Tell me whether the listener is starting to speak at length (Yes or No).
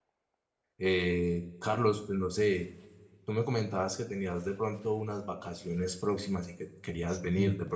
No